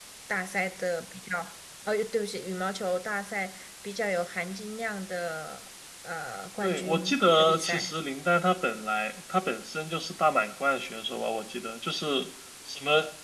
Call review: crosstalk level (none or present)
present